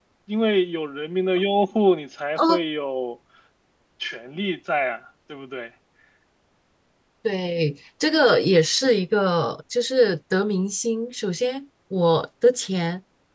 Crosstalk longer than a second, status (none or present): none